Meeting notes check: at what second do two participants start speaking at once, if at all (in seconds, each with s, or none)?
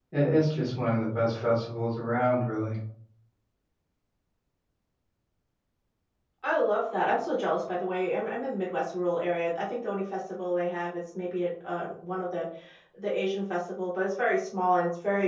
none